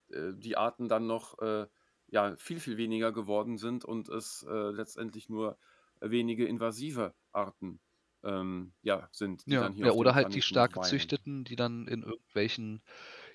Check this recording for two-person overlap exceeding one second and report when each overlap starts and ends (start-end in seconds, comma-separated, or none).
9.5-11.1